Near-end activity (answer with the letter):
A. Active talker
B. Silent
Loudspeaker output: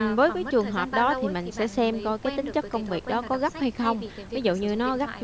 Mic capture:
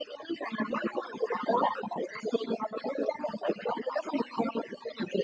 B